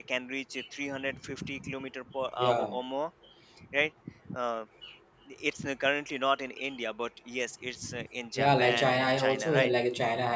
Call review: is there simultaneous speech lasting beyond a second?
Yes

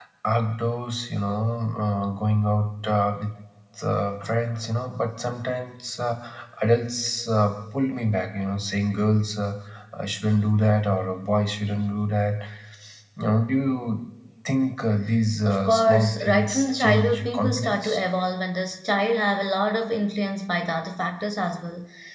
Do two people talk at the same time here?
Yes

